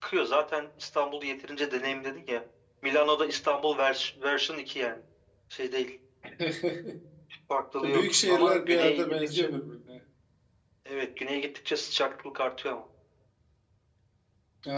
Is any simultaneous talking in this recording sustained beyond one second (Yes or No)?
Yes